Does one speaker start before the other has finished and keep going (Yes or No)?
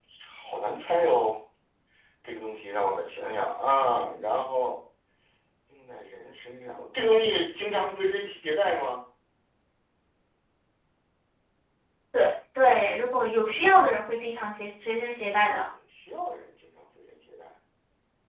No